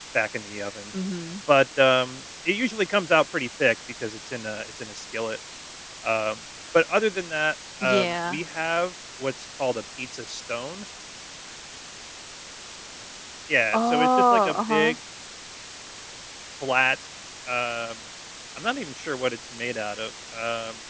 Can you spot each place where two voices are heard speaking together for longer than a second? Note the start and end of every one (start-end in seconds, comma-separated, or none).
13.7-15.0